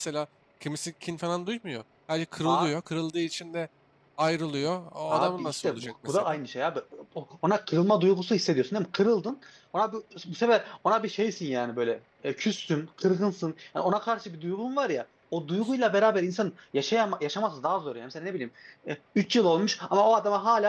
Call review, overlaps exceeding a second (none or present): present